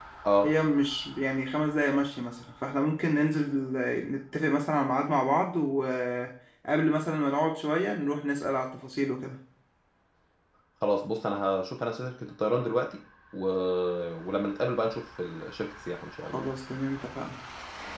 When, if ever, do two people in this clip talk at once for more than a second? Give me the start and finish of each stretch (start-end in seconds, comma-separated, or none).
none